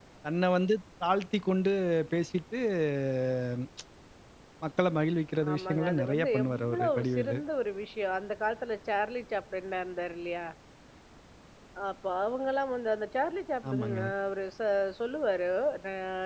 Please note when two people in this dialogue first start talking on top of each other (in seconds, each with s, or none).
5.5 s